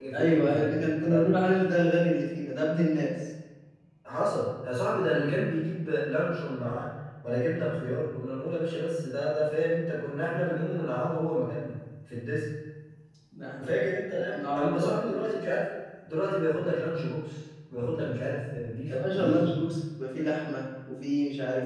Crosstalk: present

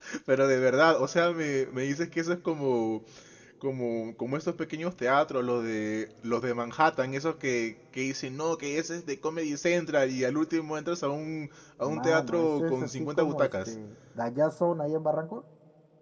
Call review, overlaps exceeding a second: present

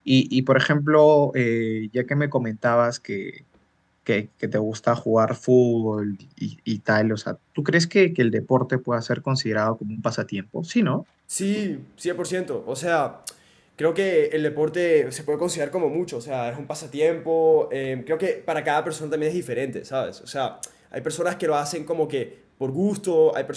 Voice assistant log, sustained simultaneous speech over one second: none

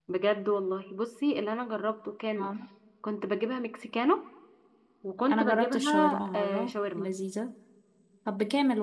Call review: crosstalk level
present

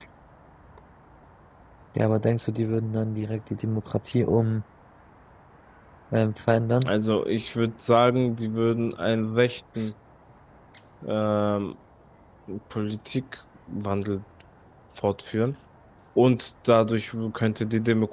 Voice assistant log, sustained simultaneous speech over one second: none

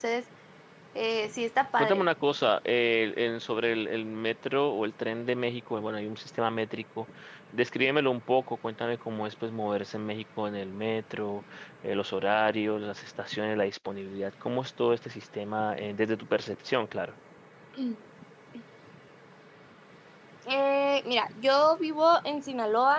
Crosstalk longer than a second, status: none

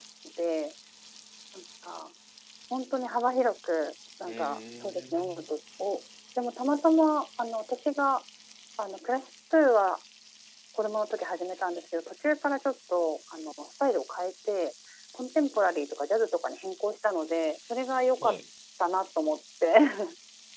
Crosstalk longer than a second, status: present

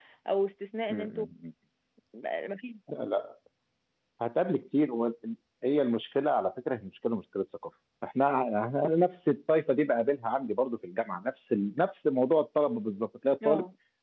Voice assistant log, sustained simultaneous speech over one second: none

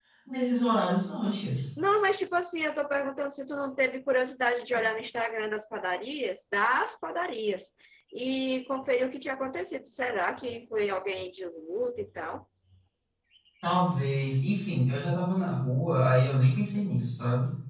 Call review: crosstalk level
none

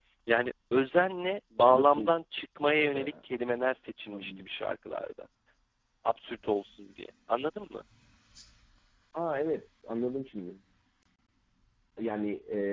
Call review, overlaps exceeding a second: none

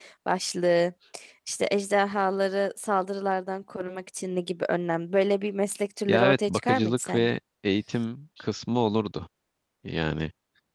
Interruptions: present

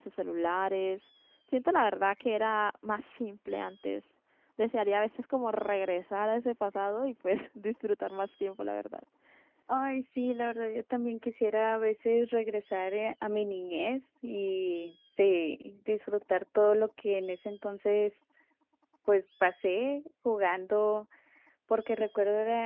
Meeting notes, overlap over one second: none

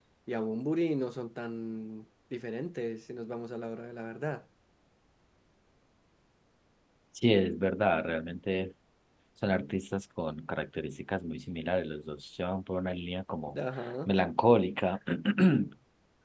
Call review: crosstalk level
none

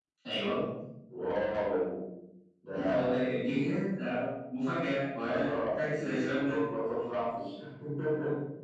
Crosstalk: present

